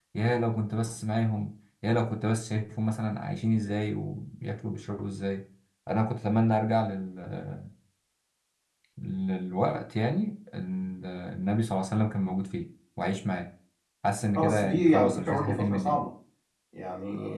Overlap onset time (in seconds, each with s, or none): 14.3 s